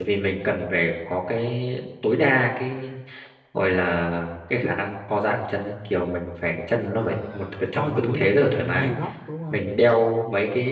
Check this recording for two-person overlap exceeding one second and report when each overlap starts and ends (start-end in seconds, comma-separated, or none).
6.9-8.9